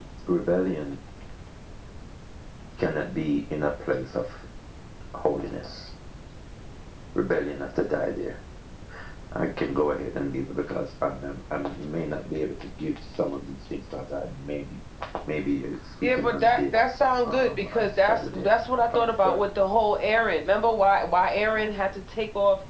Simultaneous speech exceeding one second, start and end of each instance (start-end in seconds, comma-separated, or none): 16.0-18.5